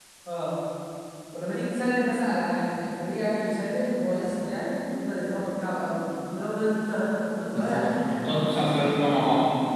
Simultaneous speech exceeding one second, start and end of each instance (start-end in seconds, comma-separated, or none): 7.5-8.9